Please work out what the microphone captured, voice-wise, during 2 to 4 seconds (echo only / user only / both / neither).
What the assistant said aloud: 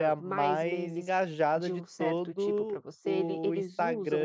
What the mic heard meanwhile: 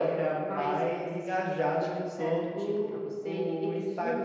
echo only